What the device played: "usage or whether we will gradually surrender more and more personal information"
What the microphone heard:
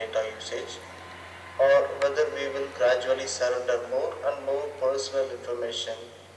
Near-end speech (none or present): none